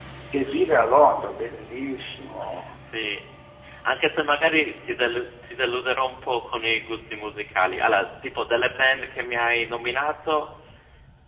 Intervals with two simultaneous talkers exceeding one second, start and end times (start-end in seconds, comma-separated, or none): none